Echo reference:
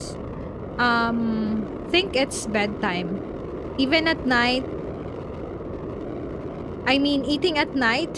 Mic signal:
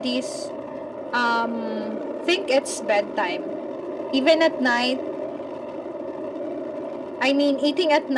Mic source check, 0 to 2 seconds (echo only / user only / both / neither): echo only